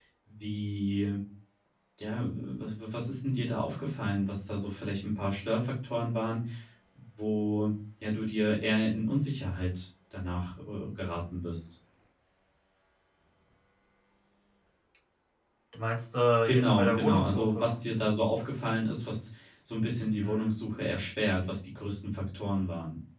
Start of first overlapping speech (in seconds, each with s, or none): 16.5 s